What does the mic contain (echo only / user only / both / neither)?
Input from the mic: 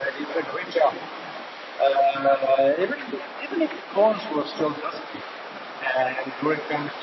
echo only